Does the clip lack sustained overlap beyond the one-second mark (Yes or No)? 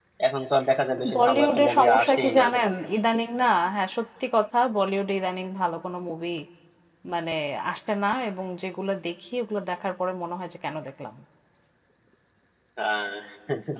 No